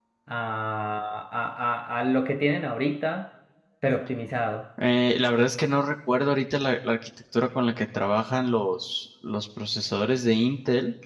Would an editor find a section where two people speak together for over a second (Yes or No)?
No